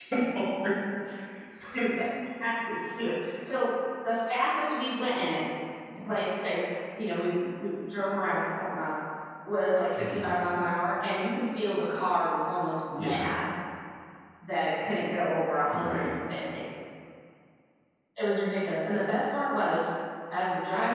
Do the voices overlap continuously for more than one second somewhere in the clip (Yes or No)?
No